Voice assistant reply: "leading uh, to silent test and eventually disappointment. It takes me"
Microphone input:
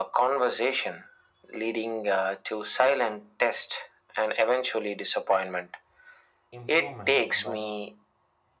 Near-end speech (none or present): present